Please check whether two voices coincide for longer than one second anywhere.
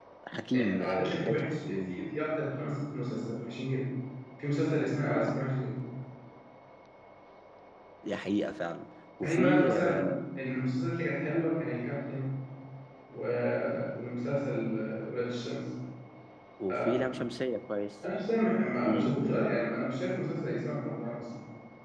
Yes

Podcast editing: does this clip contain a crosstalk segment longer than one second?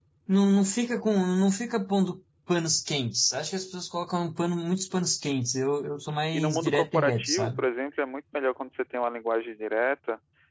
Yes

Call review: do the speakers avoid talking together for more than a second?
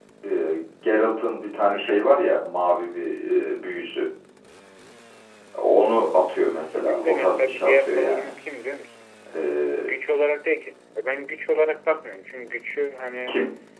No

